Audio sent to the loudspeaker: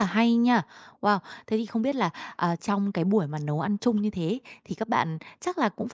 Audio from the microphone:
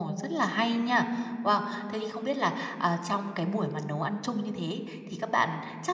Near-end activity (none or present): none